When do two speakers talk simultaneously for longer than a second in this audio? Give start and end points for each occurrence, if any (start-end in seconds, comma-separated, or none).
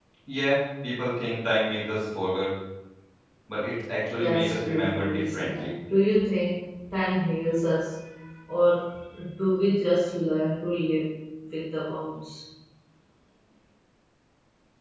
4.2-5.7